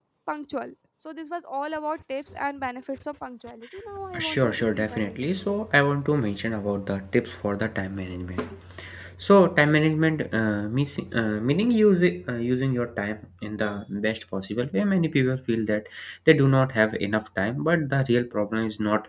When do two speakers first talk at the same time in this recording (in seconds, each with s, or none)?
4.1 s